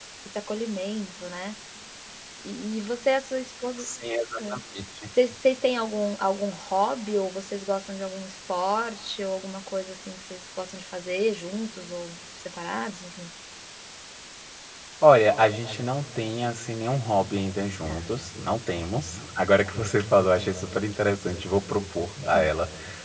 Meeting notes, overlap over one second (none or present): none